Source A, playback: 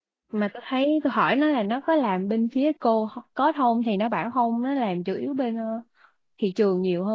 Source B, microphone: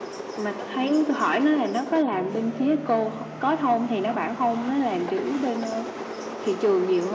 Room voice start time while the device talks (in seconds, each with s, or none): none